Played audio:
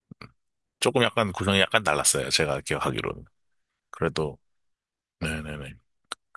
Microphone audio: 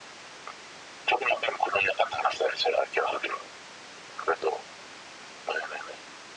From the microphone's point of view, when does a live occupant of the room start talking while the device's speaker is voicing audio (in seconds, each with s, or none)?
none